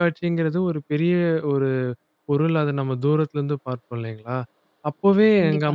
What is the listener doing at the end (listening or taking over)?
listening